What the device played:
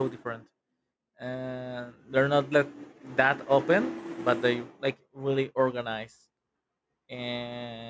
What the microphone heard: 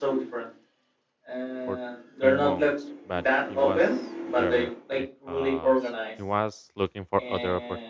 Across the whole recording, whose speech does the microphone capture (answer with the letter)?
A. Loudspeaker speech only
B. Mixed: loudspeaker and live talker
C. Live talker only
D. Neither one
B